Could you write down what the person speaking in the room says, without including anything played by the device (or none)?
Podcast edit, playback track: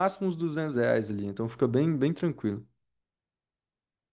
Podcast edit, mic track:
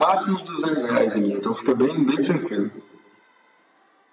none